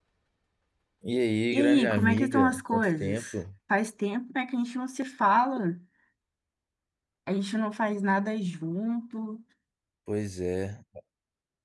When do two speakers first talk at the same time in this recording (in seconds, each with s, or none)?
1.5 s